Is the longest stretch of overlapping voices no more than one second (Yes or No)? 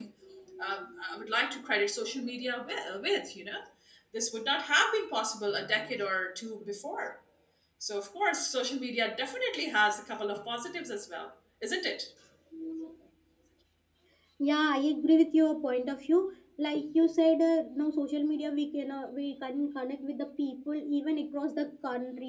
Yes